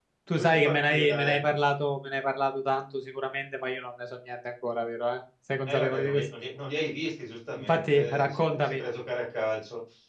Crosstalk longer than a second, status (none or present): present